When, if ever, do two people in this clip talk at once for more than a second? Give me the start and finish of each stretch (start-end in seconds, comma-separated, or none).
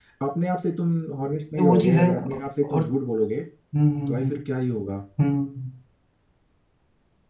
1.6-2.8